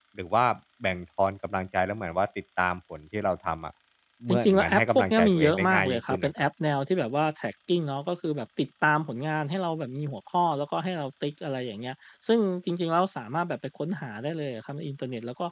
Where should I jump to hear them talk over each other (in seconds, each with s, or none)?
4.3 s